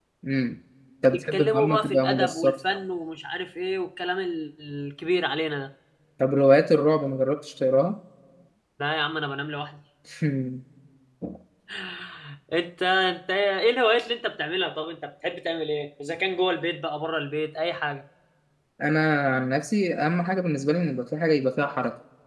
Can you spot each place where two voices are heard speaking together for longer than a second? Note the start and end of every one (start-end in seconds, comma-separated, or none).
1.1-2.5